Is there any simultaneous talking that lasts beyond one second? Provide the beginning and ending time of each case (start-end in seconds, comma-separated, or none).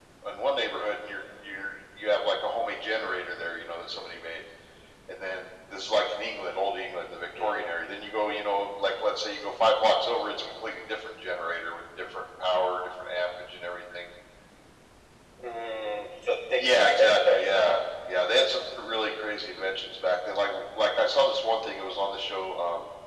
16.6-17.8